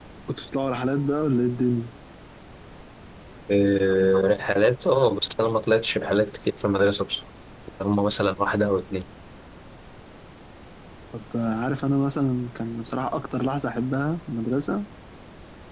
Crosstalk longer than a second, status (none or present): none